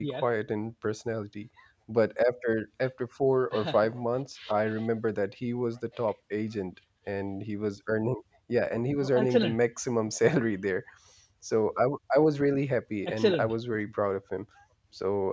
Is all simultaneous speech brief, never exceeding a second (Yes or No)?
Yes